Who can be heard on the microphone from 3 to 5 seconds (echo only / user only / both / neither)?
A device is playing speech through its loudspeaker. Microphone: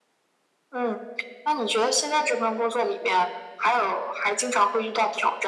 echo only